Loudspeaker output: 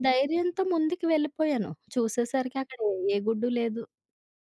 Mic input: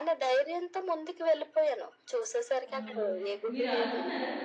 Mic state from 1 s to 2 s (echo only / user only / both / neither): echo only